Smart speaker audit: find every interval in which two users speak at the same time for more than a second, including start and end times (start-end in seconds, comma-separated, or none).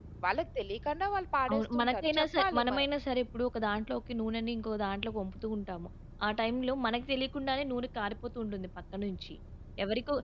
1.5-2.9